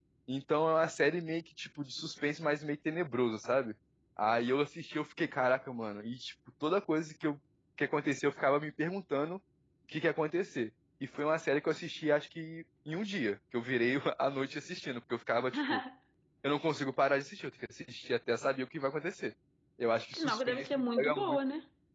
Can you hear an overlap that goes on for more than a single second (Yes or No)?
Yes